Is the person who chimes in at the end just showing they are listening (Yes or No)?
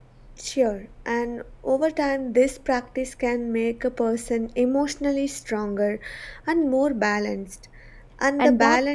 Yes